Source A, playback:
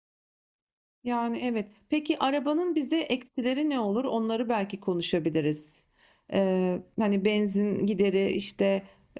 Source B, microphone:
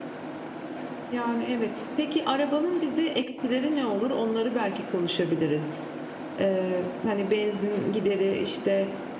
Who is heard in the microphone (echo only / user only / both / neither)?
echo only